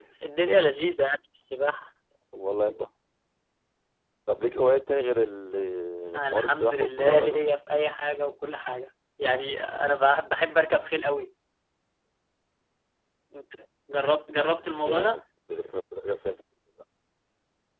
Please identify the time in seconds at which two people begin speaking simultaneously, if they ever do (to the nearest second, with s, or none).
6 s